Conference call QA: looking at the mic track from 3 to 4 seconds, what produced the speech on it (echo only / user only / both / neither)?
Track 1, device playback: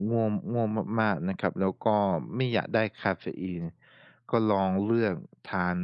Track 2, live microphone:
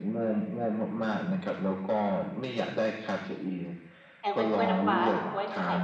echo only